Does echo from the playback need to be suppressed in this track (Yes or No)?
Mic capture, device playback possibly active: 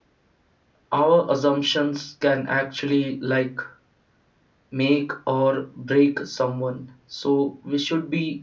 No